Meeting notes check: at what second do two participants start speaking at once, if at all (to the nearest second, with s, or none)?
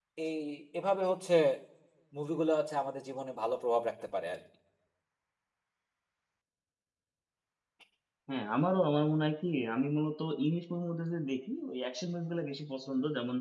none